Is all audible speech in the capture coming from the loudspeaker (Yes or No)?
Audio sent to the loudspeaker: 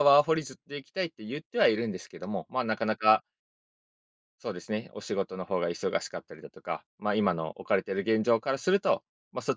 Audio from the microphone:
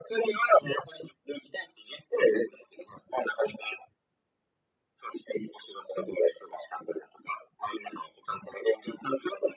Yes